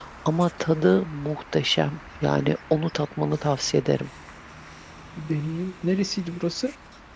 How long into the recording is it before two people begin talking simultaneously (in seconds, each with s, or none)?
none